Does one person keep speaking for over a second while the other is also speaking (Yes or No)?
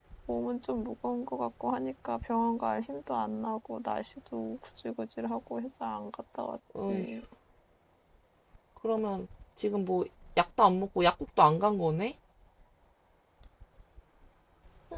No